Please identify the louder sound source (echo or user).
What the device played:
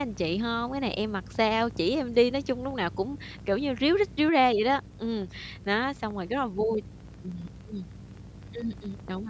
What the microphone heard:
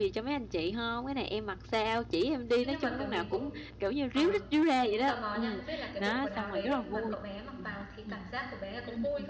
echo